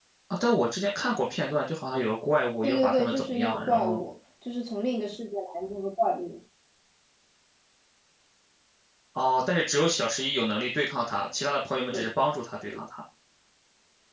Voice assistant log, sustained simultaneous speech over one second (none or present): present